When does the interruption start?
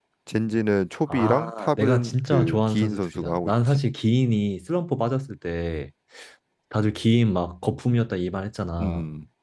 1.1 s

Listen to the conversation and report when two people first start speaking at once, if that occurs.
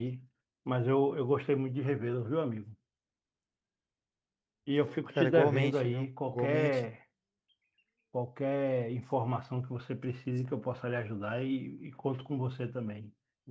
5.1 s

